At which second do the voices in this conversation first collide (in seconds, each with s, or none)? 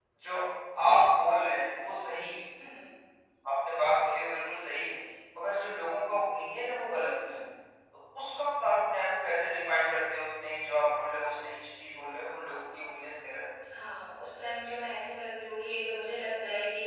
none